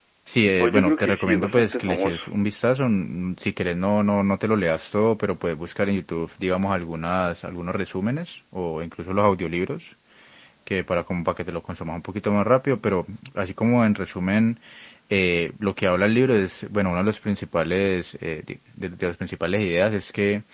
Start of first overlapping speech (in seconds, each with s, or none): 0.6 s